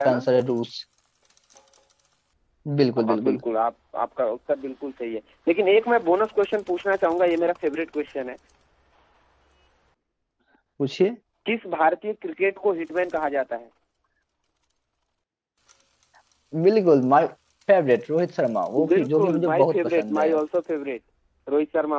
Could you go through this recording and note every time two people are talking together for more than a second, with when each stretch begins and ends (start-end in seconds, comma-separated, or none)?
18.9-20.3